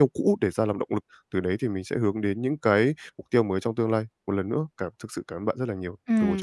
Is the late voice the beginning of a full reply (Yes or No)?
Yes